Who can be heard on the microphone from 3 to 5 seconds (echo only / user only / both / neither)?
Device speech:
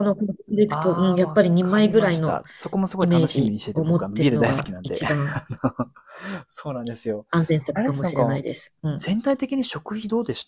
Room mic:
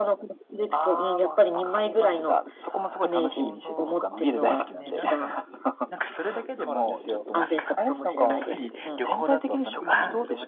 both